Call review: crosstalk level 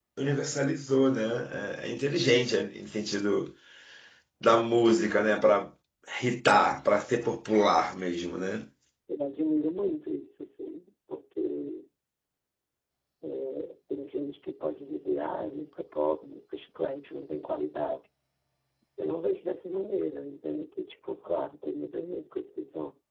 none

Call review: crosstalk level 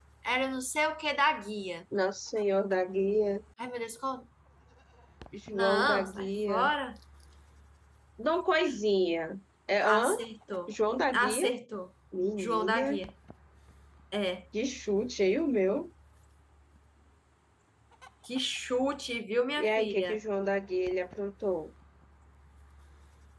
present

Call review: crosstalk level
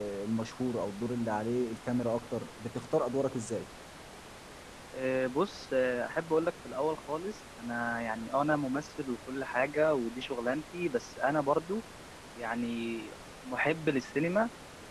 none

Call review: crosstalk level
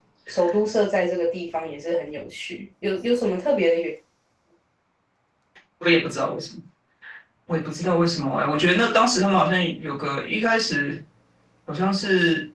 none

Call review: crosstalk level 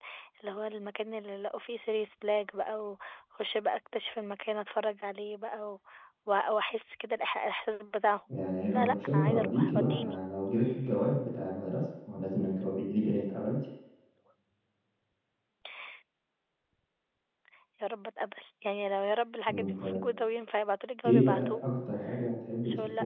present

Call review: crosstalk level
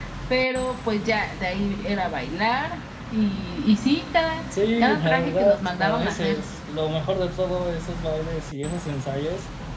present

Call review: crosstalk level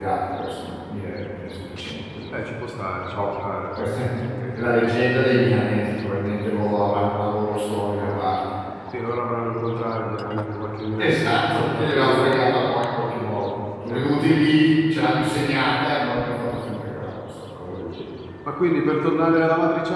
present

